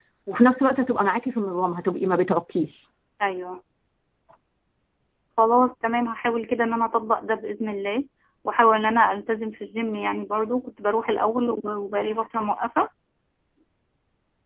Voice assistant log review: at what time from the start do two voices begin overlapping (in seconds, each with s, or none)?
none